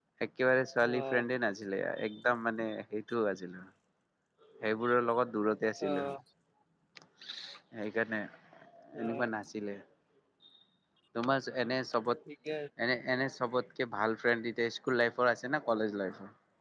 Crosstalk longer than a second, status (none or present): none